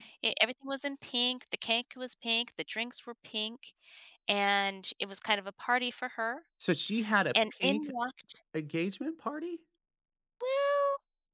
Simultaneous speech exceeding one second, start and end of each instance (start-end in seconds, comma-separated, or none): none